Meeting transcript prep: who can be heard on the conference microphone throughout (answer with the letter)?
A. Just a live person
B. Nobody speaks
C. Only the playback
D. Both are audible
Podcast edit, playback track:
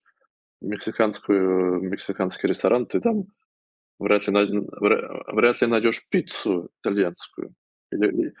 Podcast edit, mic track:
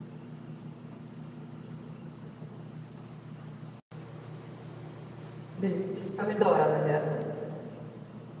A